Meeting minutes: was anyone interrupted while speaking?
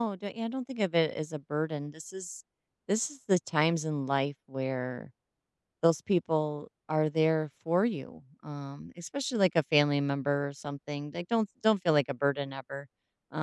No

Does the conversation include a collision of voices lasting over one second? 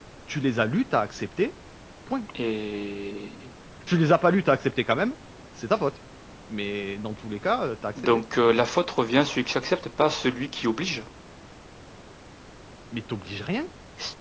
No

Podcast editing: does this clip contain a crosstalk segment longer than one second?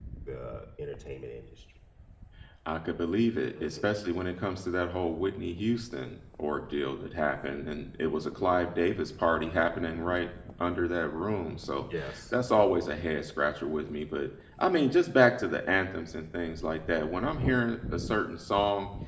No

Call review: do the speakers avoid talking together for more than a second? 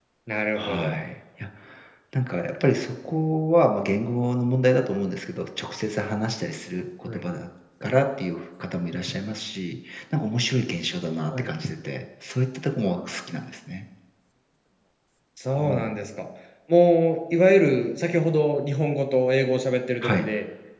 Yes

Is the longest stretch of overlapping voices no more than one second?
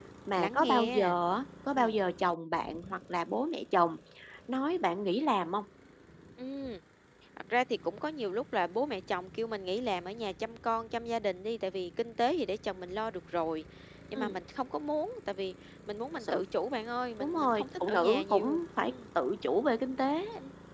No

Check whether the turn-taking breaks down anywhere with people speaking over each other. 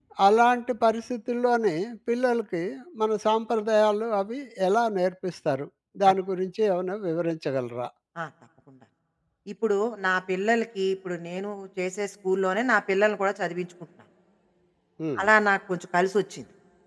No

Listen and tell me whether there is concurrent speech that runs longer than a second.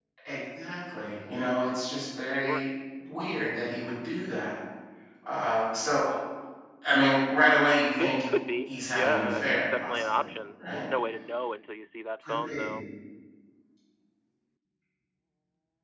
Yes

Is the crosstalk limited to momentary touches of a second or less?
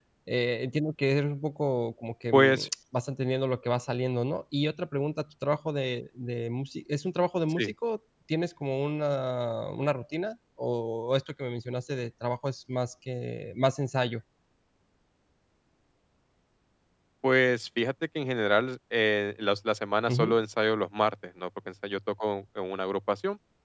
Yes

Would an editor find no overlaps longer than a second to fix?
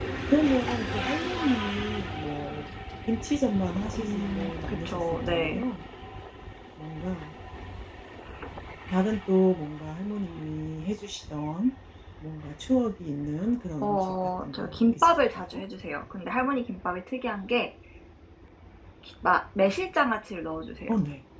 No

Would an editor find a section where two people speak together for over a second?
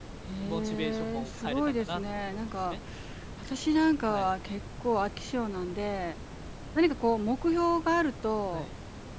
Yes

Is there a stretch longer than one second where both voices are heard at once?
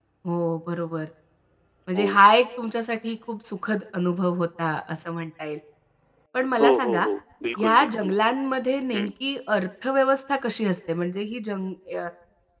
No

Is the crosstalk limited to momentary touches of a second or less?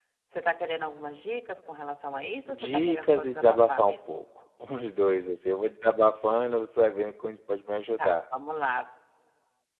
No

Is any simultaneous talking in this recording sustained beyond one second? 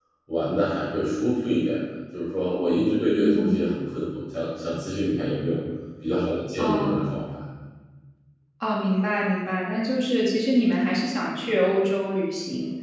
No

